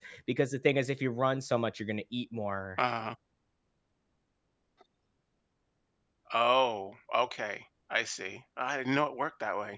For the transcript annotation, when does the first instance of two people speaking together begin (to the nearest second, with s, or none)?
none